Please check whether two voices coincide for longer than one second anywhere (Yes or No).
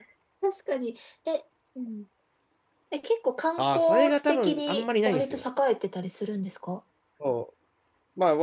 Yes